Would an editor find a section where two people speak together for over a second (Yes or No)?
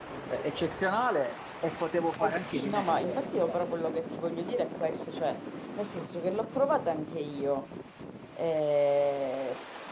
Yes